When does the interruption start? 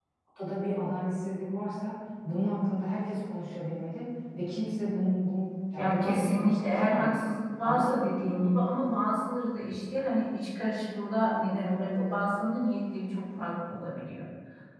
5.7 s

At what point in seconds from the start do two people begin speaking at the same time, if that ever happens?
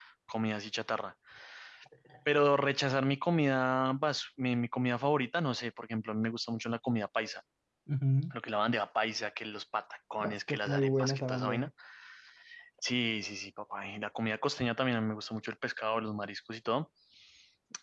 10.2 s

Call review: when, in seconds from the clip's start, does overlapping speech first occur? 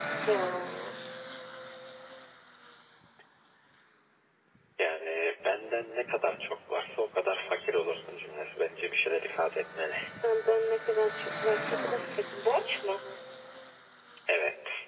none

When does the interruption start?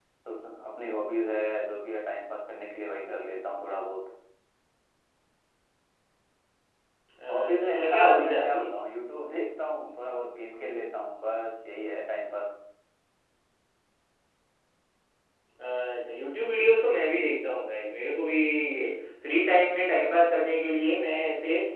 7.3 s

